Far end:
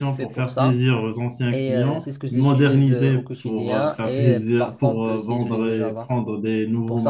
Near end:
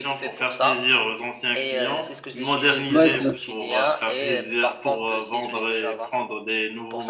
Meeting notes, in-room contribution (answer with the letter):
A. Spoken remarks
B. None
A